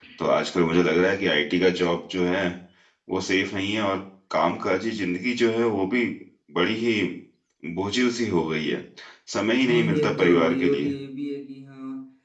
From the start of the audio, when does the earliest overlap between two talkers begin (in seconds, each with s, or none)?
9.7 s